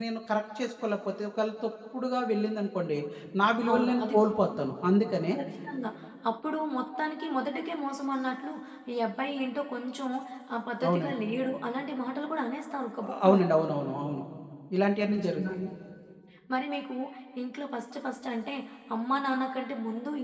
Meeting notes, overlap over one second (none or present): none